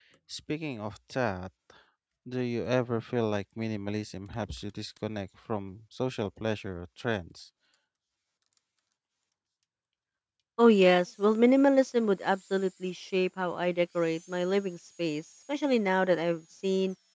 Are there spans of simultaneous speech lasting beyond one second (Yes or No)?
No